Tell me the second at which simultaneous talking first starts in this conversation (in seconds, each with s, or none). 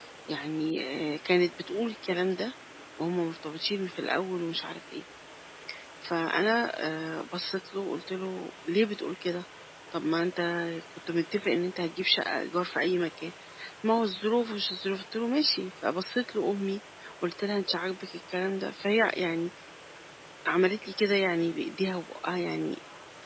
none